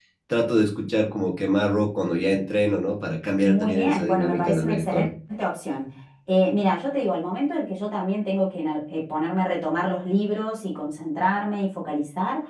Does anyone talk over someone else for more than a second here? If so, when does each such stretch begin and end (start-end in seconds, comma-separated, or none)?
3.4-5.1